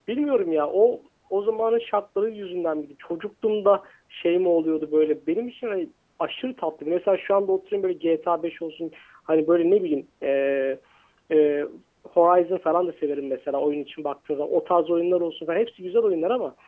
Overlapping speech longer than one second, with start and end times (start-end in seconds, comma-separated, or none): none